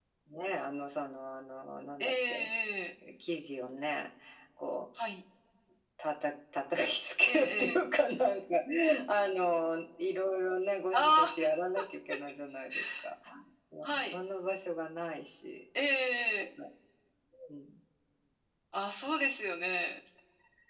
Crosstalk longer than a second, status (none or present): none